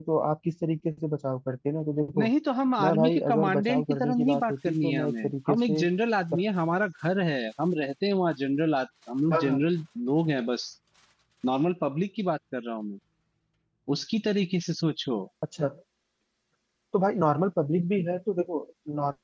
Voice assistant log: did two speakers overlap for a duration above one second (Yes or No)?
Yes